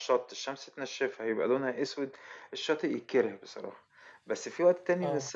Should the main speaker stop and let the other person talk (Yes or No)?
No